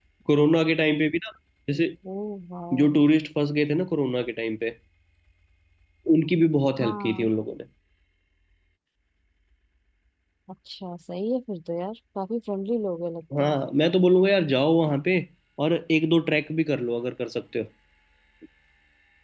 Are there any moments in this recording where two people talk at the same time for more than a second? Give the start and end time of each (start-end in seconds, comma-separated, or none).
none